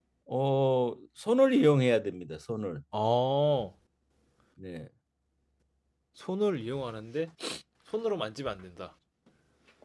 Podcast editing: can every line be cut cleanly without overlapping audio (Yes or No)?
Yes